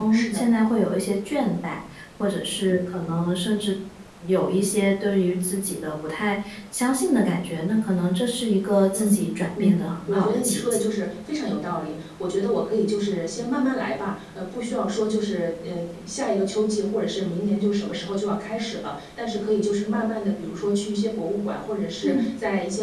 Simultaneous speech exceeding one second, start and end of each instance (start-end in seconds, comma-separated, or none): 9.6-10.8